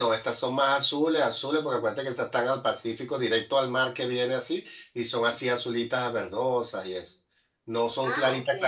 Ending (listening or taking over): listening